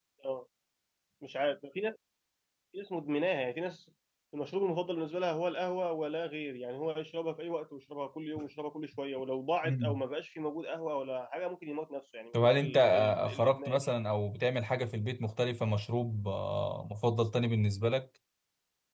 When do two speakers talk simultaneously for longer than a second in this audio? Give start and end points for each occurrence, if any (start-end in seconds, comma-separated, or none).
12.3-13.9